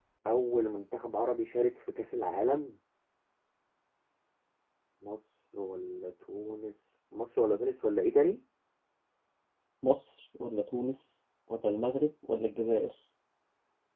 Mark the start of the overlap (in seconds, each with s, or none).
none